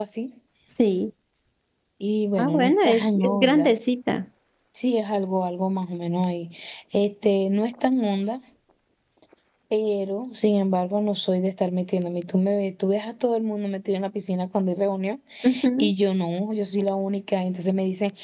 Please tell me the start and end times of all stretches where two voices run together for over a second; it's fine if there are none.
2.4-3.8

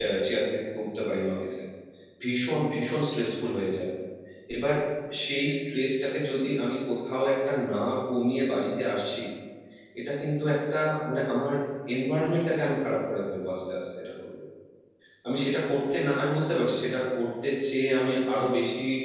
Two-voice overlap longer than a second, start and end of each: none

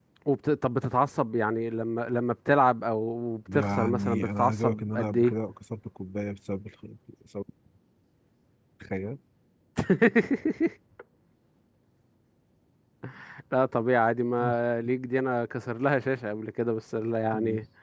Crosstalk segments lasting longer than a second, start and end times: 3.5-5.3

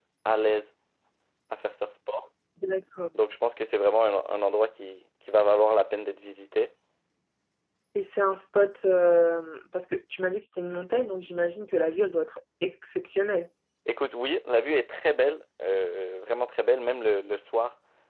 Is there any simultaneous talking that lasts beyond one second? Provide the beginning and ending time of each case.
none

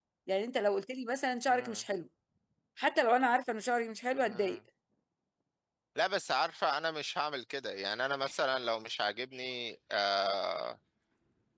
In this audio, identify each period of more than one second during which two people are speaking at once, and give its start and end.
none

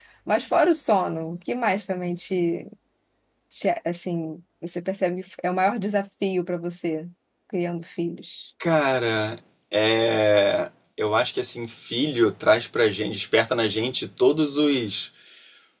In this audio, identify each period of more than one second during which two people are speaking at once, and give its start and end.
none

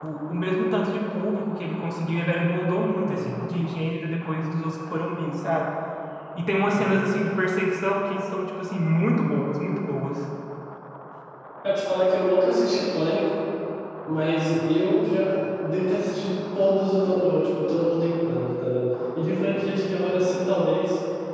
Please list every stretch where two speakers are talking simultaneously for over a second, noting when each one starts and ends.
none

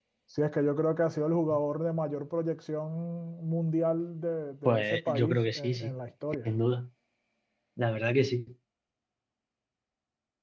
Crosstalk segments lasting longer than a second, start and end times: 4.7-5.9

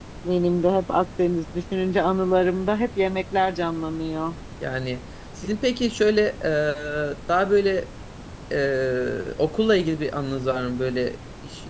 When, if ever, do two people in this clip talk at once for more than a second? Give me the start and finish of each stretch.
none

